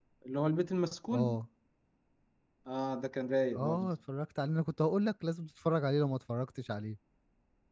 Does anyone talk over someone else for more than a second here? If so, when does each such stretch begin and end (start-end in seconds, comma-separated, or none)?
none